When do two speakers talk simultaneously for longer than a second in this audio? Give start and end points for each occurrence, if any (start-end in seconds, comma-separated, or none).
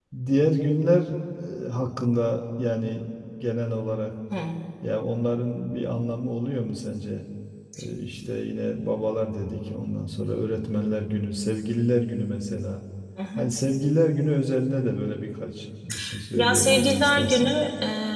16.4-17.6